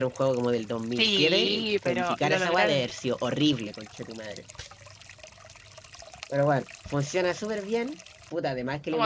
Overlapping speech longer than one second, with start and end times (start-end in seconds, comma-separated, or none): 1.0-2.8